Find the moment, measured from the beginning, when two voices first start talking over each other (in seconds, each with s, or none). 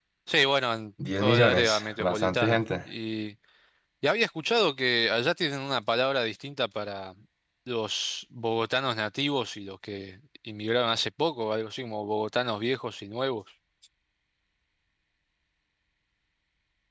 1.2 s